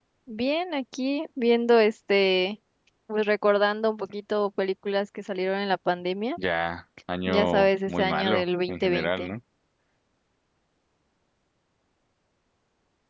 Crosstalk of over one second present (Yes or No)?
Yes